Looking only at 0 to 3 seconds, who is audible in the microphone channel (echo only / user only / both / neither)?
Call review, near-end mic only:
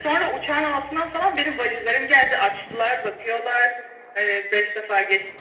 echo only